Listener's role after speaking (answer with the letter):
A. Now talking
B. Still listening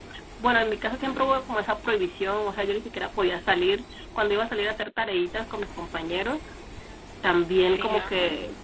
B